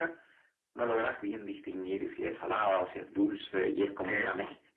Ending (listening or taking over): listening